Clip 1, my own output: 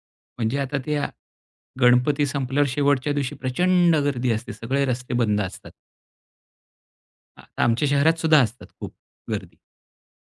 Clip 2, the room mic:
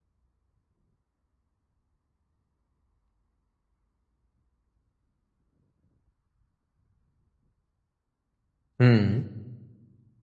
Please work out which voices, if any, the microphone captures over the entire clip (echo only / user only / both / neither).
user only